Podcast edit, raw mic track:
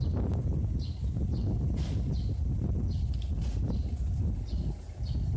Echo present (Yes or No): No